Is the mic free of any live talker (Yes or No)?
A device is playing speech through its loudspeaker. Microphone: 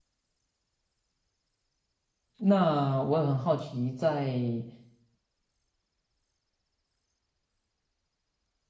No